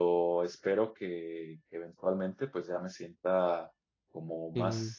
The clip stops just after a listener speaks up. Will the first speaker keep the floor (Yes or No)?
Yes